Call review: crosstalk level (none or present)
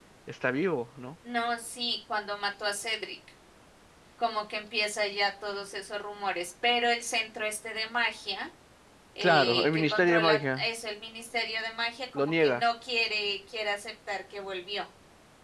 present